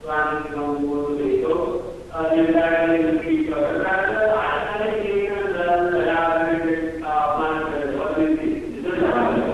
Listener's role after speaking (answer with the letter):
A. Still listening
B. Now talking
B